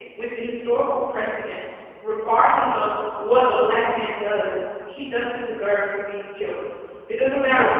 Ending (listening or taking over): listening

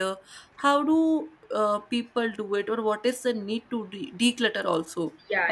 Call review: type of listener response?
taking over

